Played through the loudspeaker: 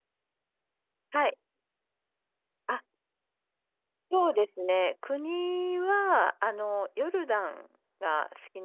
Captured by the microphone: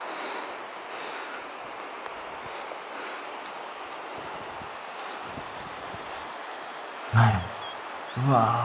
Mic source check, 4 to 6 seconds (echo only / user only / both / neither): neither